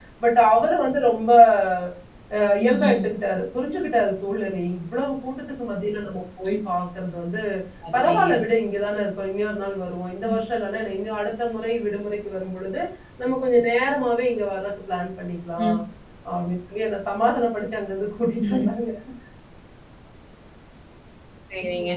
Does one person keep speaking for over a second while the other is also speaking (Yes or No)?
No